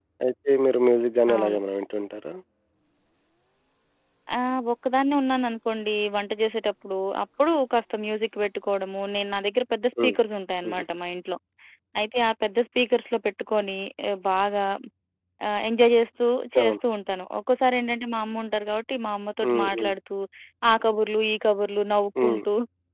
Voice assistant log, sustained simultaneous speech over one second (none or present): none